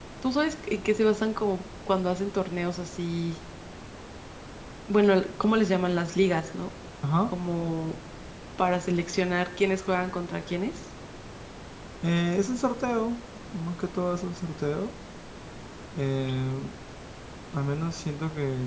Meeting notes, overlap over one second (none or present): none